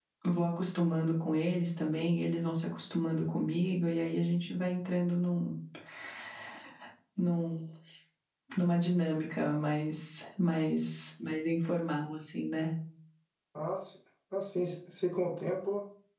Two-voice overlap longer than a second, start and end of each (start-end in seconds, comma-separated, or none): none